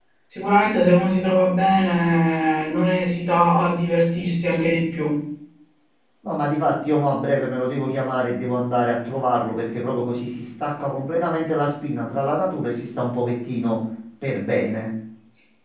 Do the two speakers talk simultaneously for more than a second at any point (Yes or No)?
No